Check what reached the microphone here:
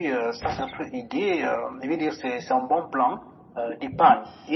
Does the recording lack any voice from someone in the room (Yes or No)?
Yes